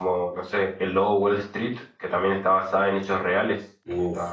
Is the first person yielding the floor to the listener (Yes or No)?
Yes